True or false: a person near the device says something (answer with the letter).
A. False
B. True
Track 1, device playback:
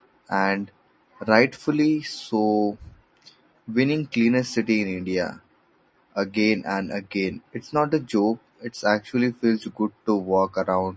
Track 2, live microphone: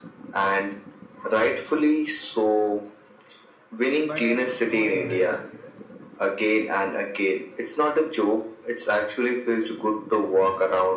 B